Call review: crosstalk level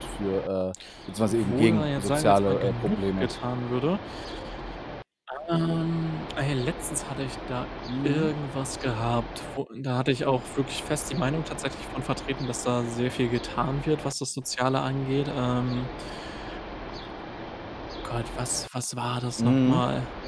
present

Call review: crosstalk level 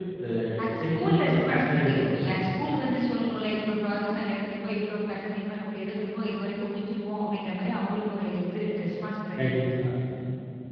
present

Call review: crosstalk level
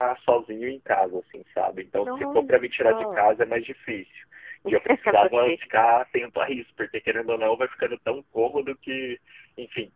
present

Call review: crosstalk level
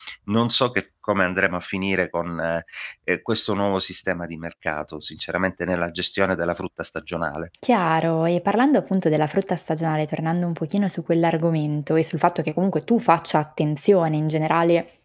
none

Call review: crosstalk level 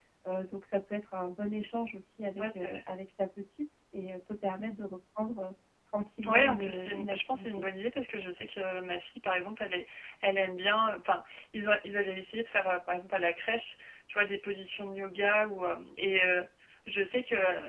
present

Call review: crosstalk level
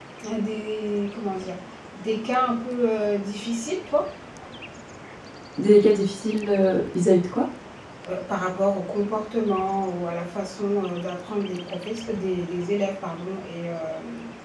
none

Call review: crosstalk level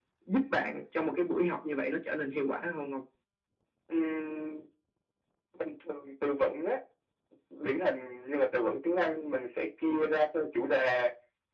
none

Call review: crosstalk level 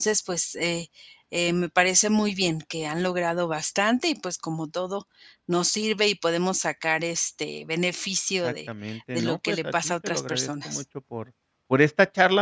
present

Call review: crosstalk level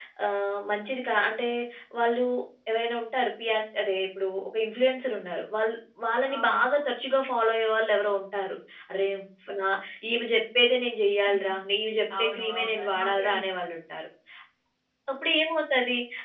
present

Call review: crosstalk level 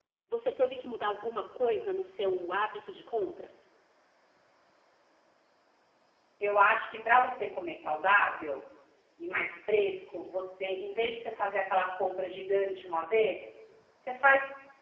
none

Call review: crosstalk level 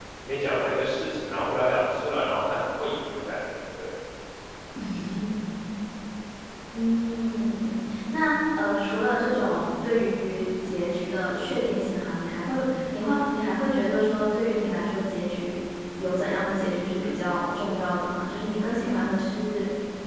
none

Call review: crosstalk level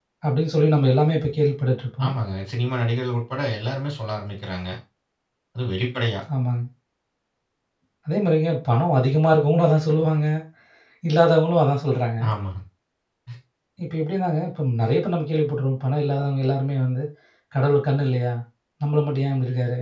none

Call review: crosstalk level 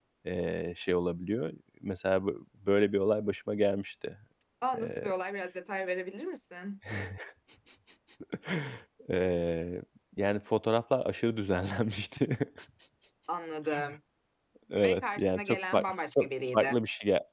present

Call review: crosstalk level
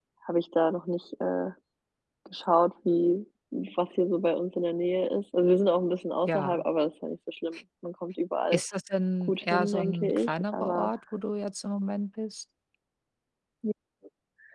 present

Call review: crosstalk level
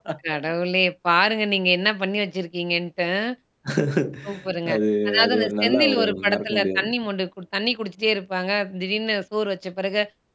present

